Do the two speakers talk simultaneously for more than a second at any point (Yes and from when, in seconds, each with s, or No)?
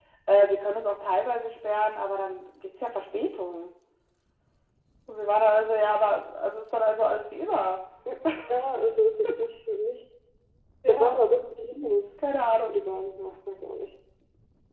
No